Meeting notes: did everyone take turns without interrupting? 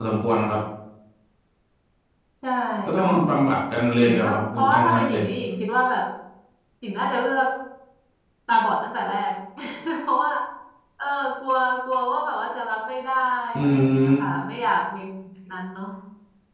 No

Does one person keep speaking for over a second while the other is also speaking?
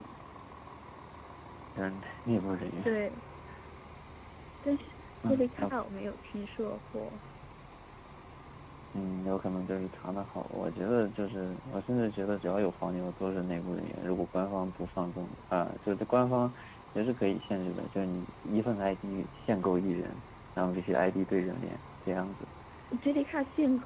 No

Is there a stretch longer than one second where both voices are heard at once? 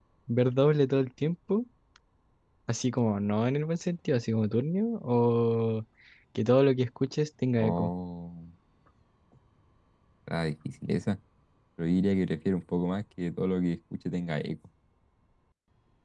No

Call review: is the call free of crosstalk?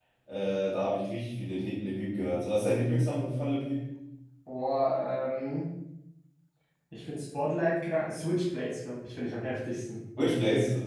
Yes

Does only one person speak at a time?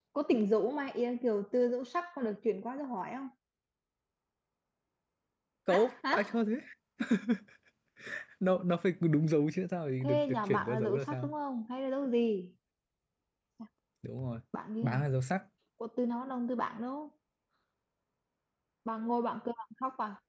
No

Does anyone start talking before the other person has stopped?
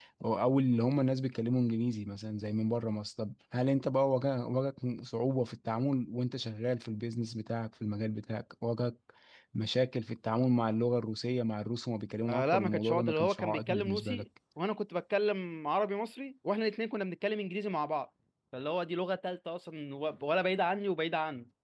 Yes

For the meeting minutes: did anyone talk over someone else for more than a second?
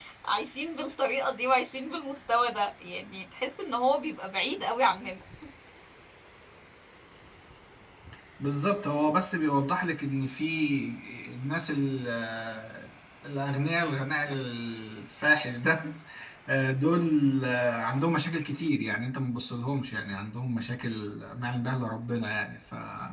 No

